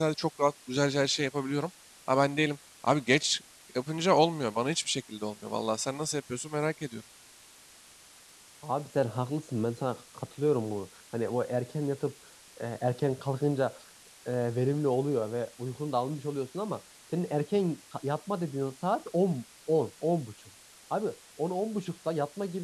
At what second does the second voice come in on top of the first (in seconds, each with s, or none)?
none